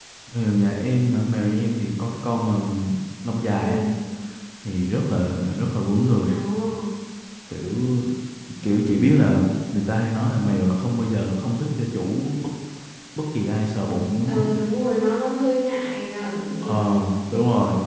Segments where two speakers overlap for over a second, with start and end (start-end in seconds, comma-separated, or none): none